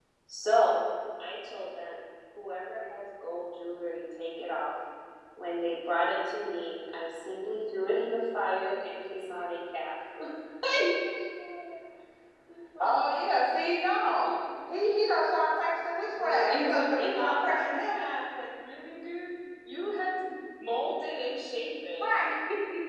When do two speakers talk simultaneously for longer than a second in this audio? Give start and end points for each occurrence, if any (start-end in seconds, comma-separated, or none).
16.2-18.0